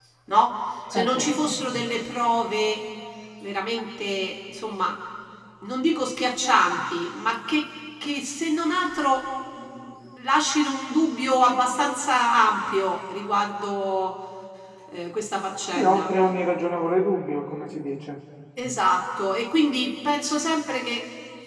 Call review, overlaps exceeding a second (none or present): none